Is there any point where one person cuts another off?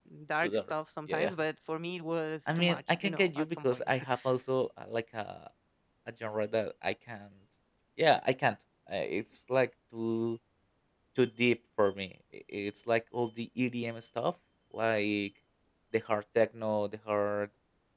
Yes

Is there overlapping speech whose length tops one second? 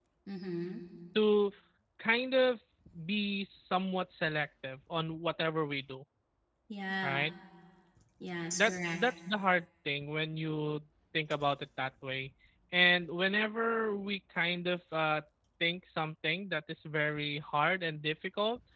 No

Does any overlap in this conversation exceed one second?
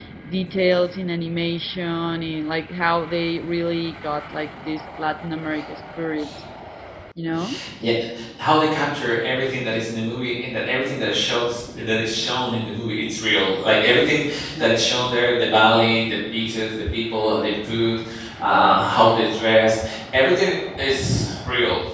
No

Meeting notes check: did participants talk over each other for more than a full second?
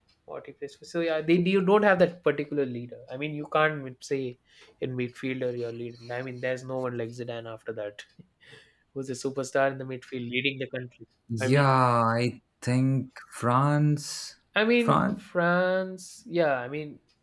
No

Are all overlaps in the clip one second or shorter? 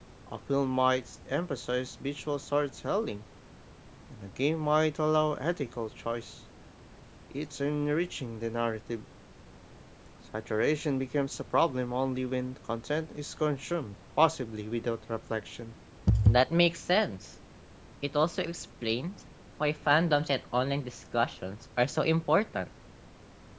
Yes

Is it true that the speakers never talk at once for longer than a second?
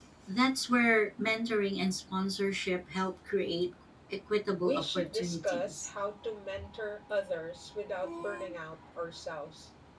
No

